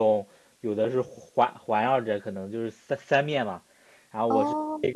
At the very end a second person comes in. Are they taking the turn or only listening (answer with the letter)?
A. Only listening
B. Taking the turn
A